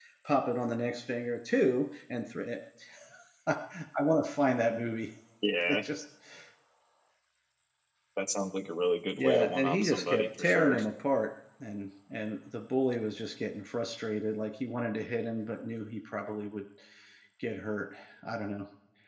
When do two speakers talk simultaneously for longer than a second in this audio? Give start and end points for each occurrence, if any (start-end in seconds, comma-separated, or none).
9.2-10.8